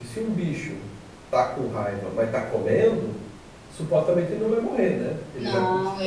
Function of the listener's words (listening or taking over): taking over